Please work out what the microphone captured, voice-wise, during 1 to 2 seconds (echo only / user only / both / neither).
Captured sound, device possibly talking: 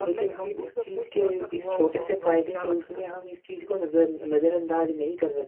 both